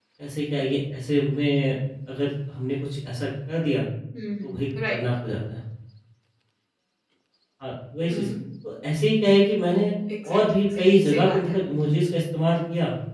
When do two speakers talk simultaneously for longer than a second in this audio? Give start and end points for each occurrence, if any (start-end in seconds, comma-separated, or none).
10.3-11.6